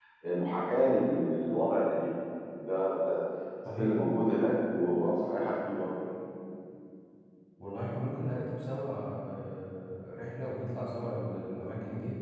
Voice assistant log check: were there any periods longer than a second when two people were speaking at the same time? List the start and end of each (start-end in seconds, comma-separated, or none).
none